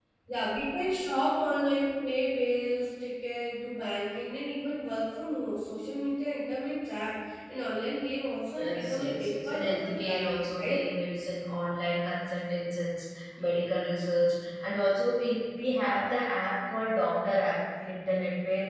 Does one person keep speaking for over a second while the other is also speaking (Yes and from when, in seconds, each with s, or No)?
Yes, from 8.5 s